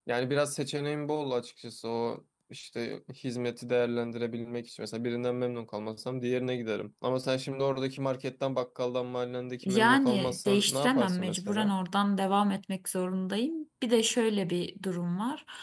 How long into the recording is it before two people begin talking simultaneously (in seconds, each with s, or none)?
9.6 s